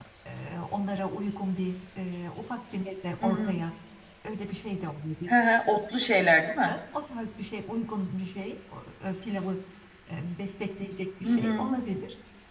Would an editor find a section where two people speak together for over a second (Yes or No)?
No